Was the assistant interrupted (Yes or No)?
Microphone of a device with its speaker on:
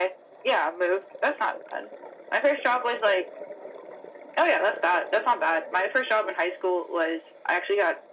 No